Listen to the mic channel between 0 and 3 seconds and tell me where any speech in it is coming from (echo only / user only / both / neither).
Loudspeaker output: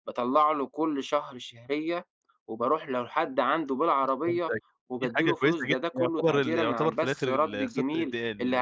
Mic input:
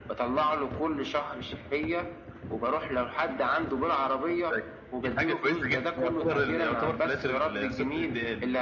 echo only